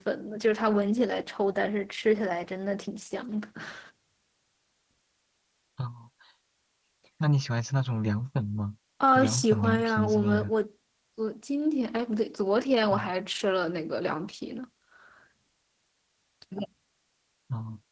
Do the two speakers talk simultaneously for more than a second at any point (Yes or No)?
Yes